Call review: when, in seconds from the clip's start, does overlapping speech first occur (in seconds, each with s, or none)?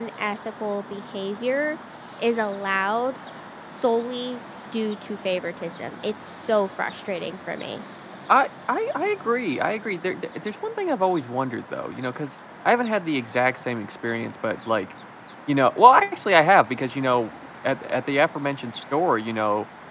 none